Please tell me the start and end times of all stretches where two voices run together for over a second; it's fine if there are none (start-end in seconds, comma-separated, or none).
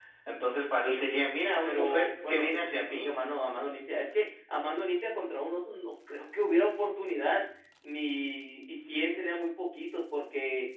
1.6-3.1